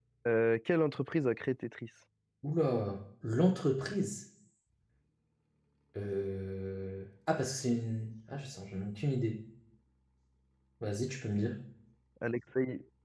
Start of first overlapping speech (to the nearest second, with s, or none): none